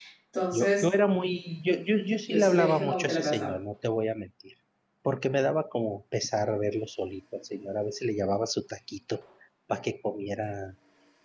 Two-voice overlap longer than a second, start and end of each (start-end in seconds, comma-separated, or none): 2.3-3.5